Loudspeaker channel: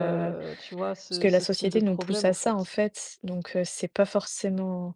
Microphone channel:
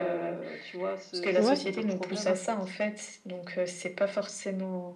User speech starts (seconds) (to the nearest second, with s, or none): 1 s